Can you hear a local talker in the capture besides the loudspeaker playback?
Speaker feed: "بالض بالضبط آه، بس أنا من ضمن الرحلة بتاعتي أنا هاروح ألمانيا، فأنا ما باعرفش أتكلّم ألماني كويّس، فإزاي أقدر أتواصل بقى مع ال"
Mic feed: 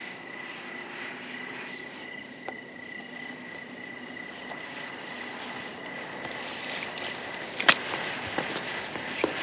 No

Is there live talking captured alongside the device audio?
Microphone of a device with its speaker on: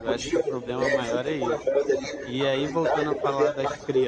Yes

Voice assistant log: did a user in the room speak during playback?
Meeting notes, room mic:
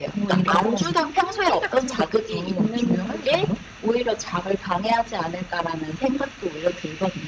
No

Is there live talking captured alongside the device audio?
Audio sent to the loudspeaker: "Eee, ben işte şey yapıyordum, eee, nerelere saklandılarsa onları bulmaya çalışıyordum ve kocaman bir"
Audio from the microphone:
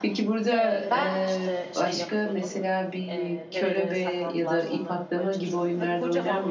Yes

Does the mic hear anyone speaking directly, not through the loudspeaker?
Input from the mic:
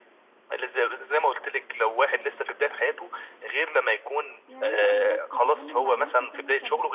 Yes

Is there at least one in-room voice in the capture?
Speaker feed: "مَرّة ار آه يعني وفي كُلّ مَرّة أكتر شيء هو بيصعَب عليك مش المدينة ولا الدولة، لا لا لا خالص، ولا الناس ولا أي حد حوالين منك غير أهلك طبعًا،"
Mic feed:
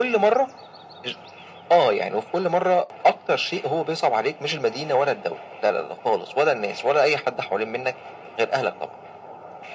No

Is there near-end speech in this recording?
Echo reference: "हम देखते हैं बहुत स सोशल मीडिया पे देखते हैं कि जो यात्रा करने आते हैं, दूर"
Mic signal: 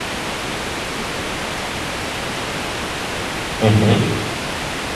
Yes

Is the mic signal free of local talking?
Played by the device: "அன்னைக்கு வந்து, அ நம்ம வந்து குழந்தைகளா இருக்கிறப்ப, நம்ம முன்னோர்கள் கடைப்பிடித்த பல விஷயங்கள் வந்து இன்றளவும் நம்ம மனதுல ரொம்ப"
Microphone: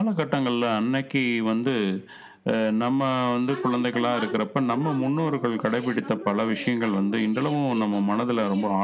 No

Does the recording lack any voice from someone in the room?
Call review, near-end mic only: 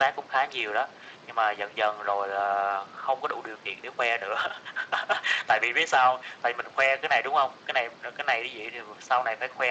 Yes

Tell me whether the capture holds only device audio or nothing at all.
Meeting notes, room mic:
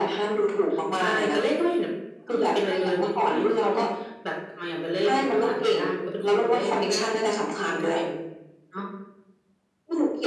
Yes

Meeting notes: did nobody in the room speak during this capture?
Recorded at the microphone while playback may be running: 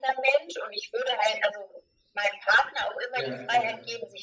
No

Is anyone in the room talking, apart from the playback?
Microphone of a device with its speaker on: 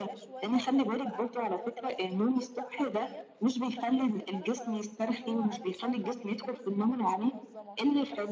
Yes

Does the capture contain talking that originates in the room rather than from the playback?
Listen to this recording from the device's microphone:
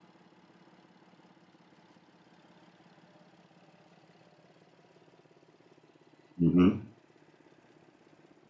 Yes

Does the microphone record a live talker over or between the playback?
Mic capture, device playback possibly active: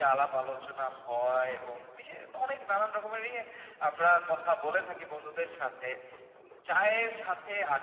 No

